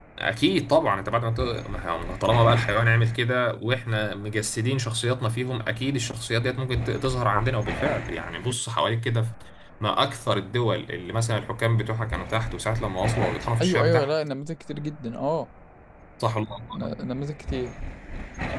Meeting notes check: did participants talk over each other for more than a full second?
No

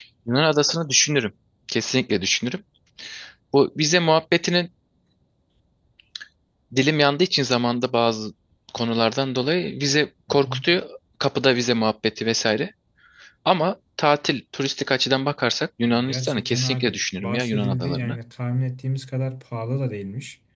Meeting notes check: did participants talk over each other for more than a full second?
Yes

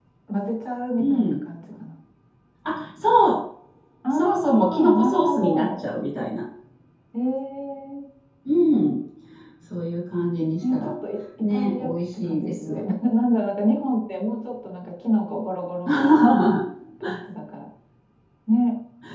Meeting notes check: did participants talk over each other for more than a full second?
Yes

